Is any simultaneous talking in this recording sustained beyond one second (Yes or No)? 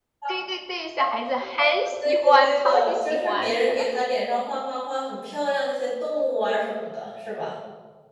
Yes